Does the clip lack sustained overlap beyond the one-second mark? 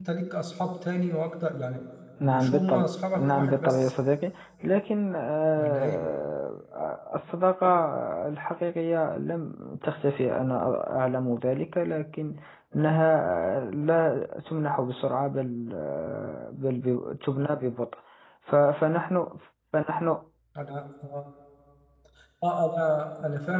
No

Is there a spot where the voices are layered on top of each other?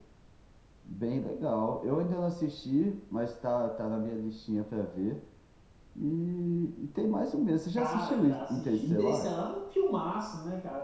Yes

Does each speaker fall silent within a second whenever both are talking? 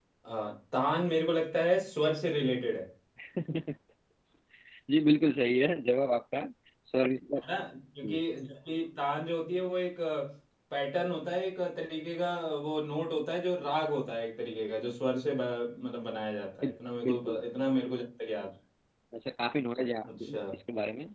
Yes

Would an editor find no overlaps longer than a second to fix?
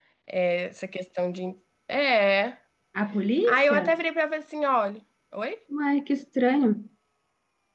Yes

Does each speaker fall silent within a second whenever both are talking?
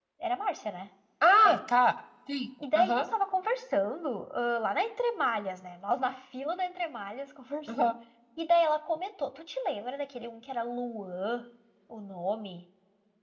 Yes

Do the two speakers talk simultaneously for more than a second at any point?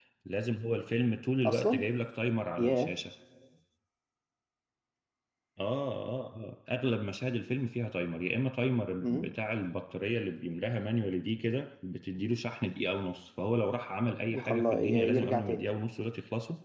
Yes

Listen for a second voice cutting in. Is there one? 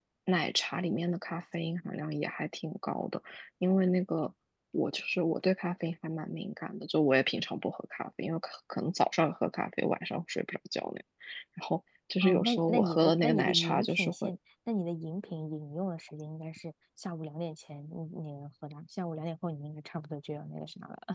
Yes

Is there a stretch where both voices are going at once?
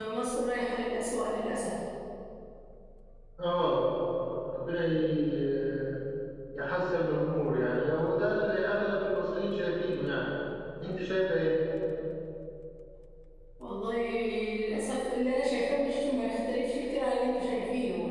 No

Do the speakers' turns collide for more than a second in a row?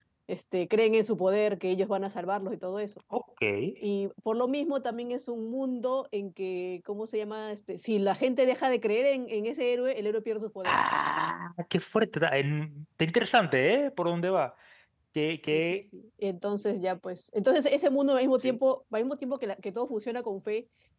No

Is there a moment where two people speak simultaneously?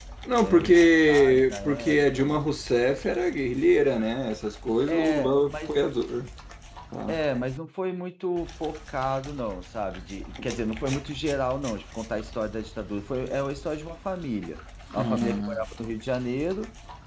Yes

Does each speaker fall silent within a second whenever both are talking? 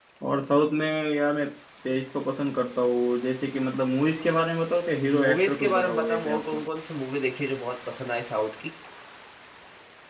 No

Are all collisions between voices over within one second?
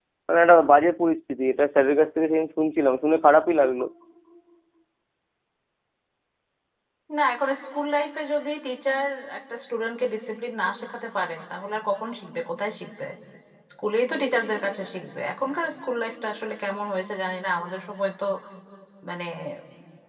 Yes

